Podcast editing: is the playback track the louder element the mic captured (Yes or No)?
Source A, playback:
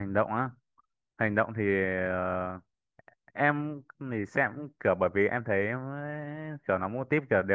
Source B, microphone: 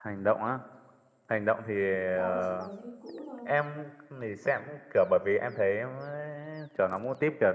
Yes